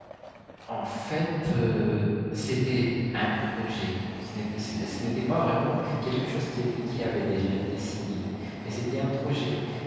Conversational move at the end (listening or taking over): listening